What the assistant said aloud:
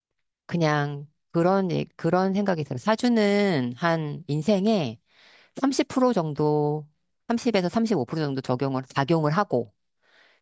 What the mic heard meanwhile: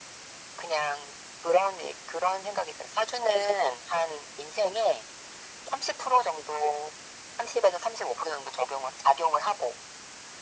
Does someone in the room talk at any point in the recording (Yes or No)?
No